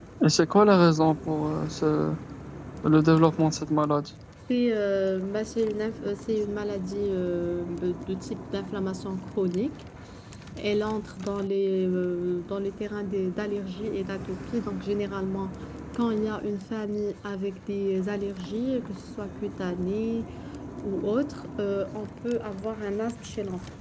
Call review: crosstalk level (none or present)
none